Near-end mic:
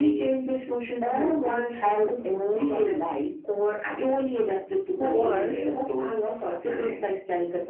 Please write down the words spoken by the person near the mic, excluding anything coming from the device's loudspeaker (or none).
war,